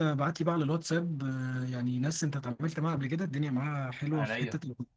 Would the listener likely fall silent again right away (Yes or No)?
Yes